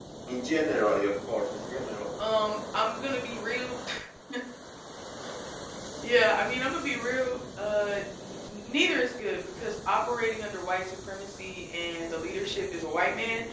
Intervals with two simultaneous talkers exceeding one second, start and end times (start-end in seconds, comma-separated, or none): none